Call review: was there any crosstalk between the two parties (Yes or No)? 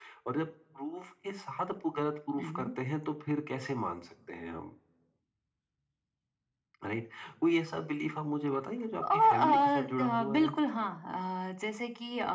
Yes